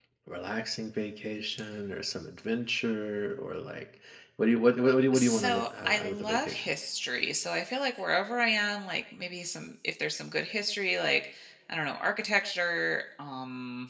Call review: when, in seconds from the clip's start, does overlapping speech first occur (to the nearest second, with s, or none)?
5 s